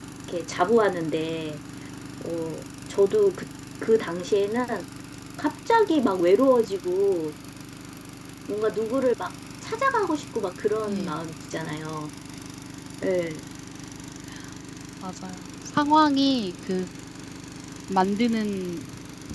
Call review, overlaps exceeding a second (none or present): none